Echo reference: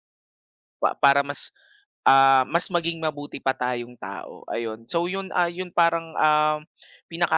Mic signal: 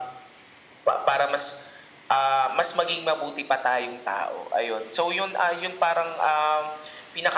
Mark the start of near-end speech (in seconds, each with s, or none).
none